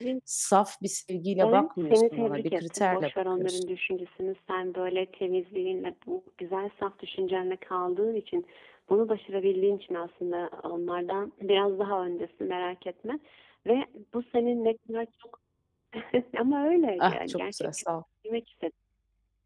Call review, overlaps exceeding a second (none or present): present